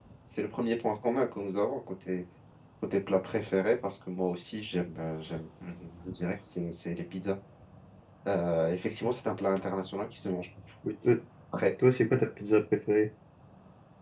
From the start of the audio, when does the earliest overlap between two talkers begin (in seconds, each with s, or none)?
none